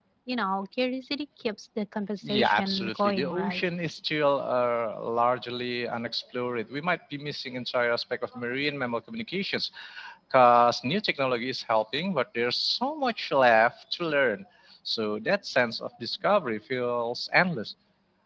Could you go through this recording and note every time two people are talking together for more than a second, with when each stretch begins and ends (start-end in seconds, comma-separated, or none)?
2.2-3.6